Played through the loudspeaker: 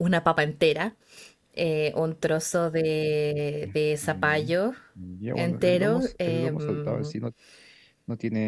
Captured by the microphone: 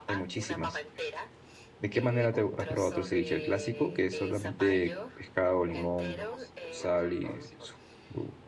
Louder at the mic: user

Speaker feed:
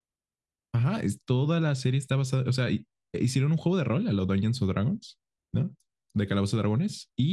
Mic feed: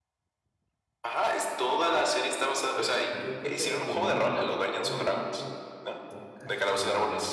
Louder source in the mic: echo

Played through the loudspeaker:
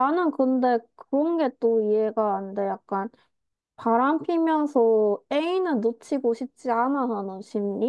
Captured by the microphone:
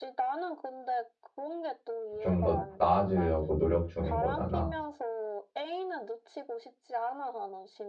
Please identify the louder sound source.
user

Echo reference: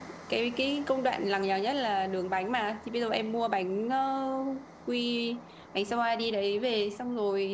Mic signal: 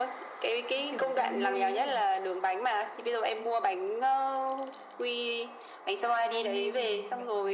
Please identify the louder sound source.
echo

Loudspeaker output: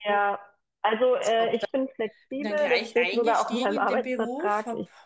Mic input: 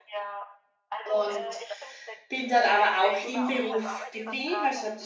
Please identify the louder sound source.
user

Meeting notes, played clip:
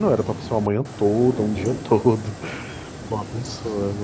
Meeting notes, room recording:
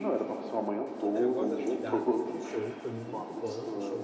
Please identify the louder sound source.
echo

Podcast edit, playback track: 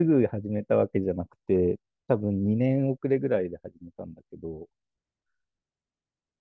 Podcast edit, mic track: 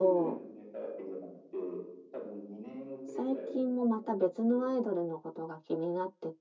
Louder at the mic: user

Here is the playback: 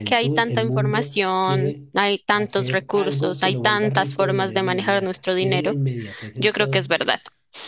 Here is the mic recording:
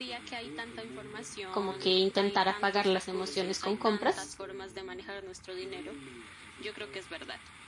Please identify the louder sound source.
user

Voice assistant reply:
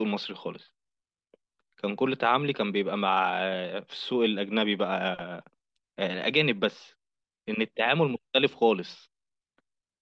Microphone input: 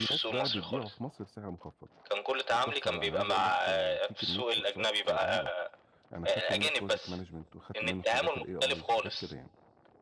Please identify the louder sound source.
echo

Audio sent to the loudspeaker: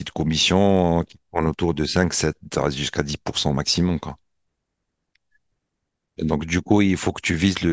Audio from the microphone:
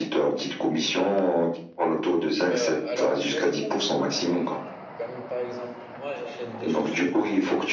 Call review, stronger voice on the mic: echo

